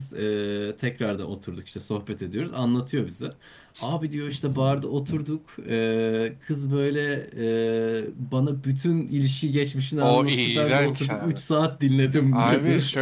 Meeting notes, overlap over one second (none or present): present